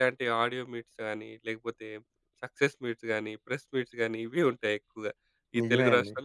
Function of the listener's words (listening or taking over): listening